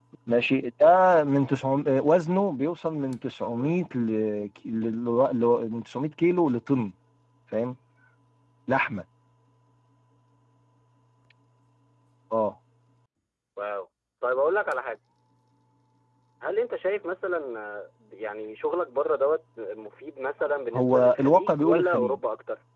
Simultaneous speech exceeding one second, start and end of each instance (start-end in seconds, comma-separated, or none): 20.7-22.1